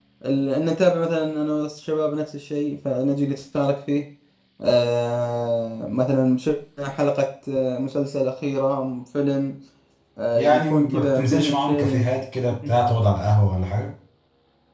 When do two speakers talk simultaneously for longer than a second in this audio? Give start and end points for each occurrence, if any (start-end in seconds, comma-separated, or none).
10.3-12.0